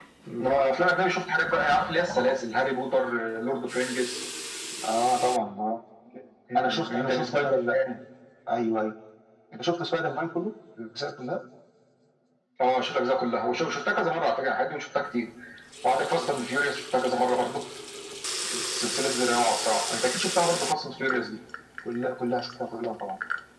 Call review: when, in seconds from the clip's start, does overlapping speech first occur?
6.5 s

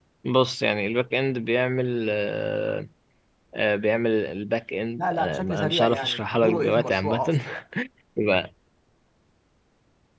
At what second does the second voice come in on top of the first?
5.0 s

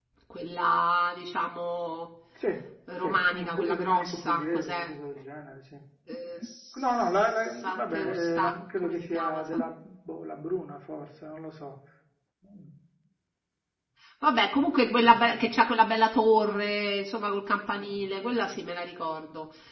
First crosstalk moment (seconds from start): 3.0 s

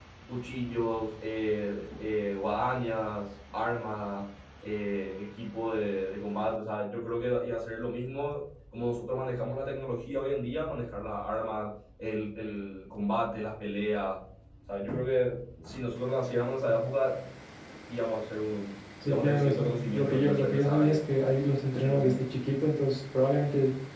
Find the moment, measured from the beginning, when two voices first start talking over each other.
19.0 s

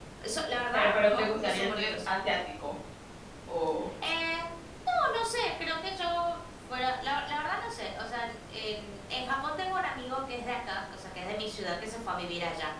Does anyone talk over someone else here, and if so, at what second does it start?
0.7 s

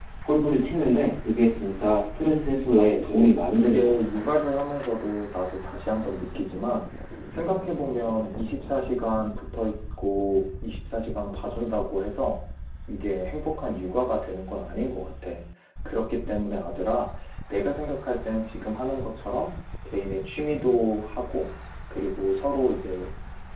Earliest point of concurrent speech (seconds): 2.8 s

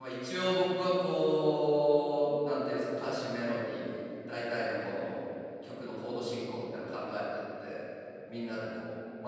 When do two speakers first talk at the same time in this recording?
none

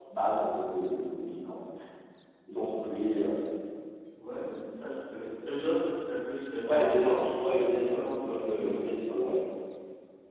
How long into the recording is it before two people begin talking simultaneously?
6.7 s

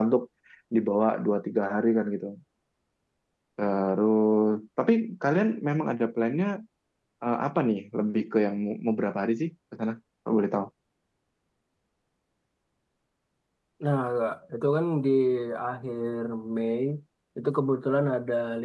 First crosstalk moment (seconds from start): none

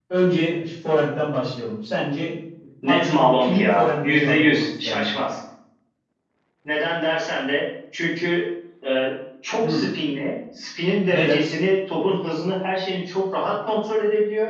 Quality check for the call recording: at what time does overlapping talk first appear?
2.8 s

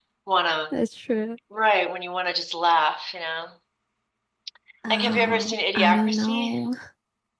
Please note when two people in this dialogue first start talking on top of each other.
4.9 s

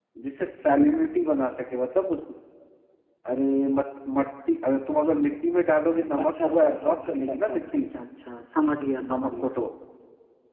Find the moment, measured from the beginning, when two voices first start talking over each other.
6.2 s

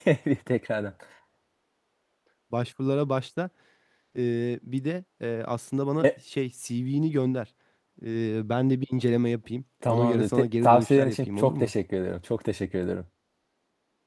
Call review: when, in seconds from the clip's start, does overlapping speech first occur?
9.8 s

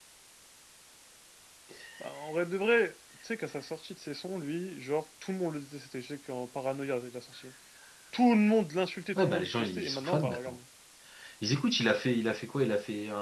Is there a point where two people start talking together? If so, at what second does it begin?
9.1 s

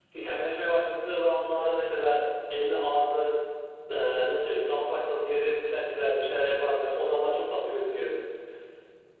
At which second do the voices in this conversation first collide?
none

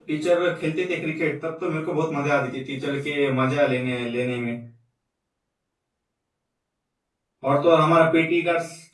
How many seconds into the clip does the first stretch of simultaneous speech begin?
none

